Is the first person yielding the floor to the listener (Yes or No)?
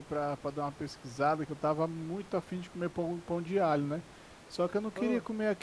No